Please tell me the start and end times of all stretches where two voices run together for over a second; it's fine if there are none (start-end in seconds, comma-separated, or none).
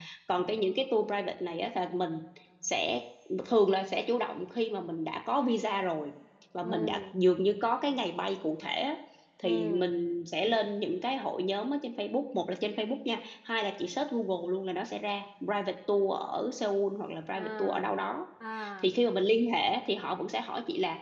none